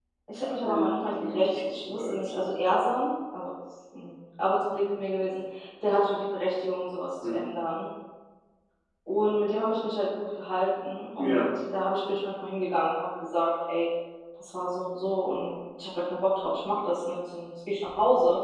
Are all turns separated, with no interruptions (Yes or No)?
No